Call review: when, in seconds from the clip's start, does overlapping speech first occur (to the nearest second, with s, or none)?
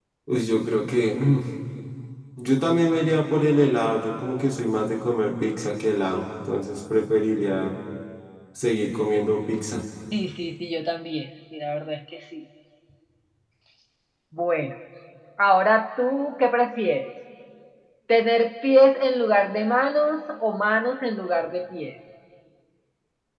none